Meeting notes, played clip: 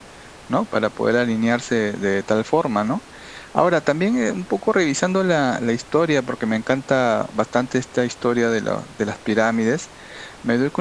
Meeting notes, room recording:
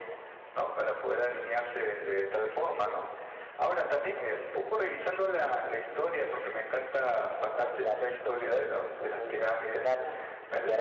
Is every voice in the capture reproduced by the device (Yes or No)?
No